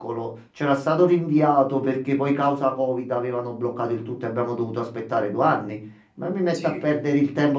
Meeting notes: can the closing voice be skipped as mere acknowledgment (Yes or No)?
Yes